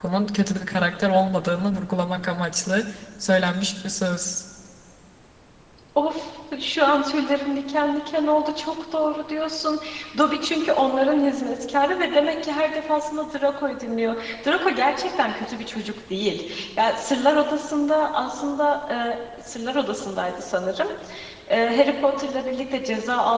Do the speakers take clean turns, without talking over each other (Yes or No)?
Yes